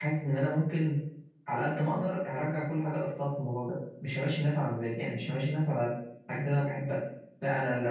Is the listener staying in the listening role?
No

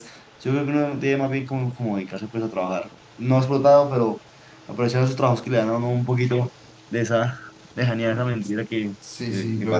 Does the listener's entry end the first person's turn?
Yes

